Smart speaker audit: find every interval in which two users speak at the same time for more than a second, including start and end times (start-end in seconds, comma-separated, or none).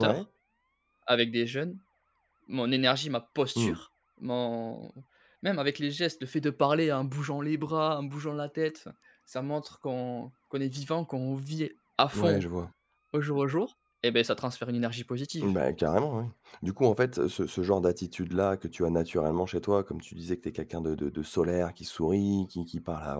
none